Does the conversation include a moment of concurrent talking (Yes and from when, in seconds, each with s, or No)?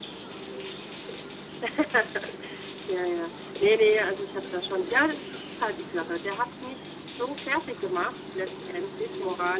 No